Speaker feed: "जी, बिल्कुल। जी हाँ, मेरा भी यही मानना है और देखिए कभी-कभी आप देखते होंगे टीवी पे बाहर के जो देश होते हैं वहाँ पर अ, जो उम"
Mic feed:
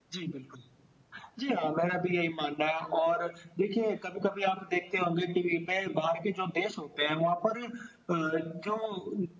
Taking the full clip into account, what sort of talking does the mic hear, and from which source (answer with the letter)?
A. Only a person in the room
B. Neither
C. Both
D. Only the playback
D